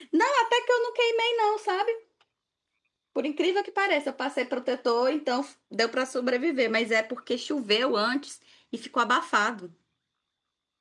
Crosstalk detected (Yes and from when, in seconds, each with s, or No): No